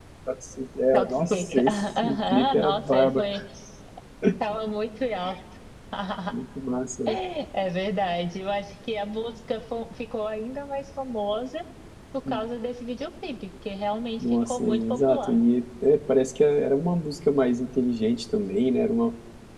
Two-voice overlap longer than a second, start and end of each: 0.9-3.3, 14.2-15.4

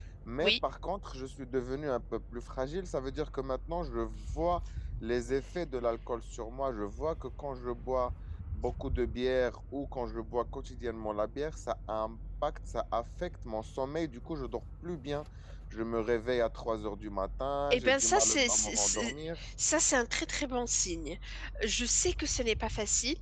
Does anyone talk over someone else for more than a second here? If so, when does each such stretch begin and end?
17.7-19.1

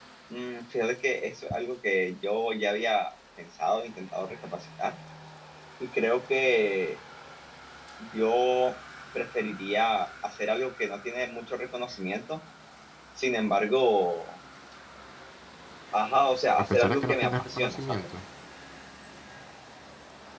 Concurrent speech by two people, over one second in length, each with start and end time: 16.7-18.1

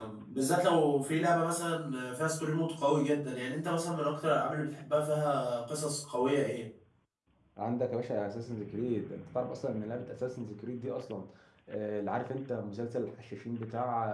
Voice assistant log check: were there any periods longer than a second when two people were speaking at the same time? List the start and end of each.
none

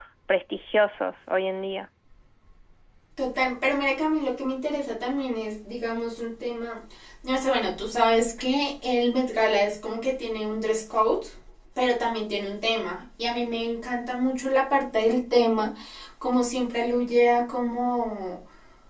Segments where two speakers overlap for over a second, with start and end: none

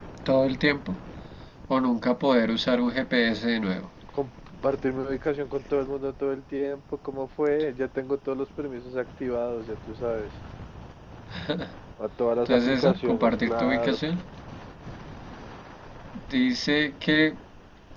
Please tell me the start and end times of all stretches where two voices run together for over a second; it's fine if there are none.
12.4-14.0

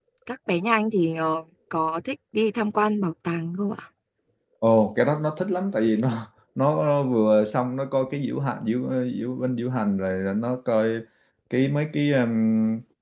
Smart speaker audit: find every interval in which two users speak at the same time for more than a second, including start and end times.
none

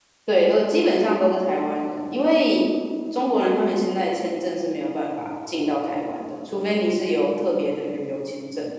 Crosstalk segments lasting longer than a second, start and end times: none

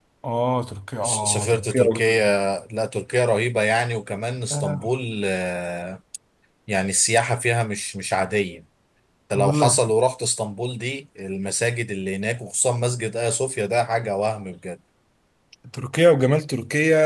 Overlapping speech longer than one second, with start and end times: 1.0-2.2

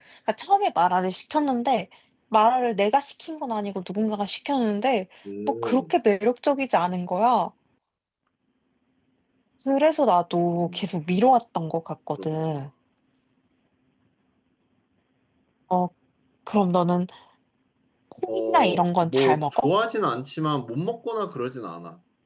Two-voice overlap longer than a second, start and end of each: 18.3-19.7

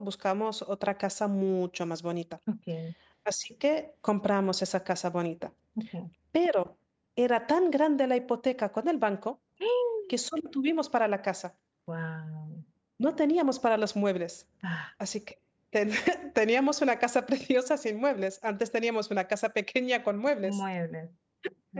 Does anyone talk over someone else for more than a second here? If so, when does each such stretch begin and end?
none

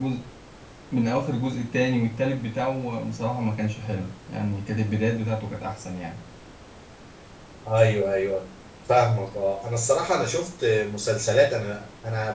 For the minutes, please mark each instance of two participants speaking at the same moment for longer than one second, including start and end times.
none

